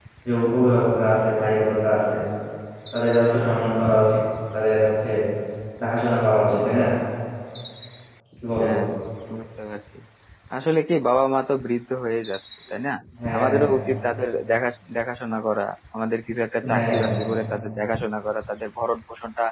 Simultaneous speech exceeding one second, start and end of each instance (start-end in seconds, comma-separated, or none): none